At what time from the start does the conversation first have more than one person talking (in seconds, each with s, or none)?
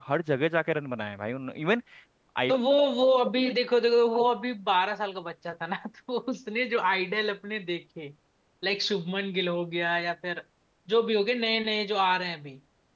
none